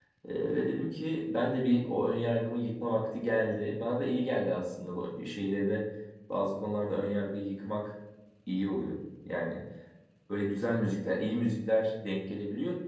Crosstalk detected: No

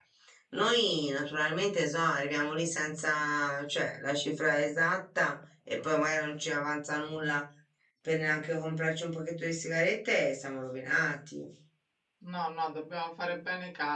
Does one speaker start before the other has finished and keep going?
No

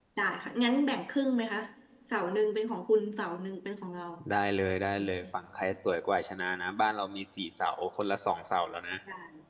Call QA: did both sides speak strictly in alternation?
Yes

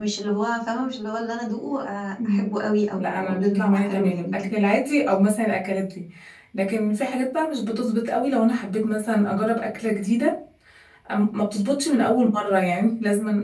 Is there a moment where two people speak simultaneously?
Yes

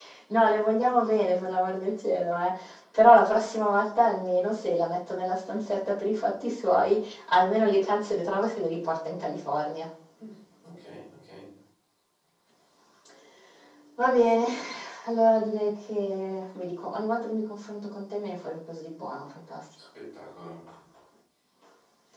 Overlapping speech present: No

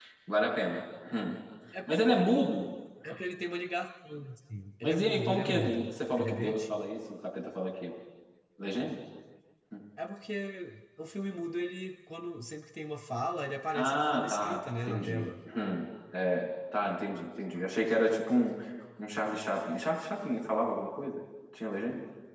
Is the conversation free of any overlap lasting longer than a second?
No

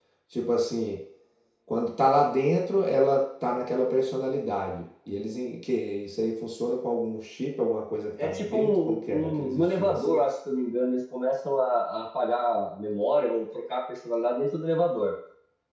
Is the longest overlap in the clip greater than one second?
Yes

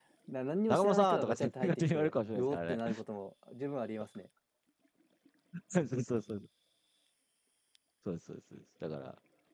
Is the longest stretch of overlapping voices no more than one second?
No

